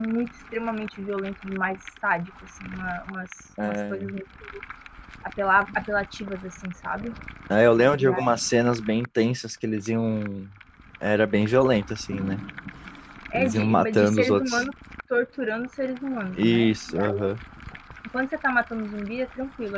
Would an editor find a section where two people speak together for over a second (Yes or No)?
Yes